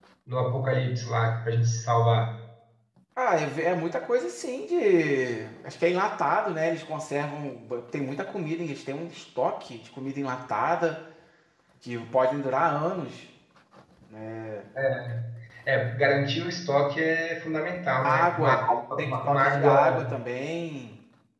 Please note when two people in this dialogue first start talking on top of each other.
18.0 s

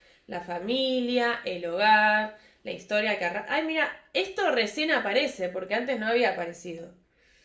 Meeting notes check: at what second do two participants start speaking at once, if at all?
none

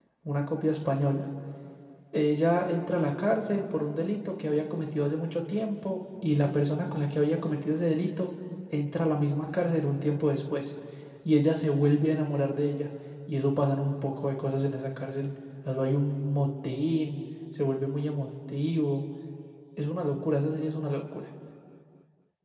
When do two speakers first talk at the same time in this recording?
none

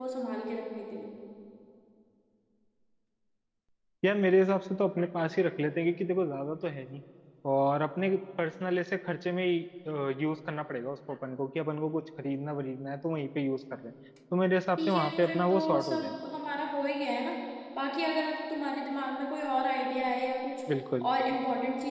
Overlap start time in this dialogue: 14.8 s

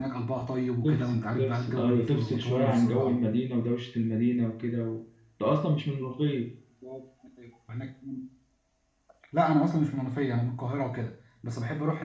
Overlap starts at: 0.8 s

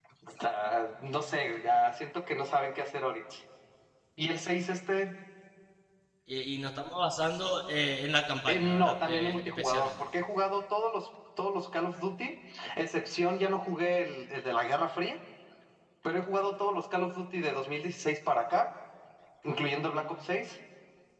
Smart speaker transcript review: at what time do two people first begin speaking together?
8.5 s

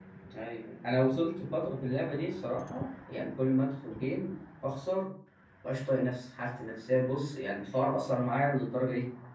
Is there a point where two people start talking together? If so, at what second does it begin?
none

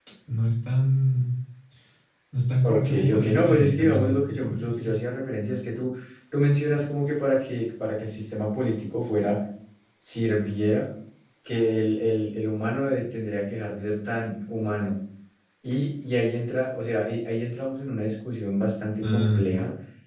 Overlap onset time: 2.6 s

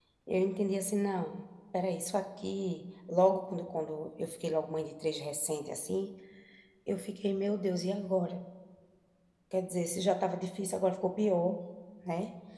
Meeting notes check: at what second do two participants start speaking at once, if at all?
none

